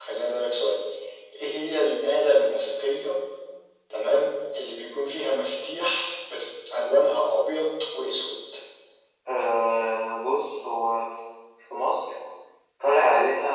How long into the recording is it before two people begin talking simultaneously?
none

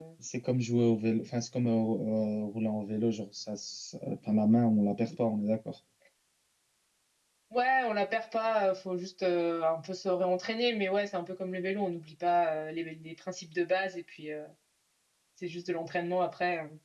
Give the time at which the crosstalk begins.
none

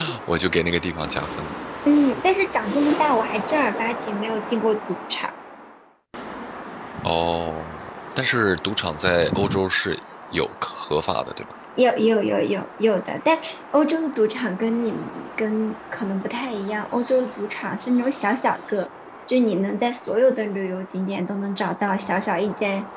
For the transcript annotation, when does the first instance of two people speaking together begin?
none

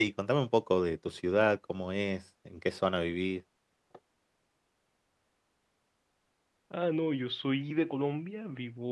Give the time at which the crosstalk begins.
none

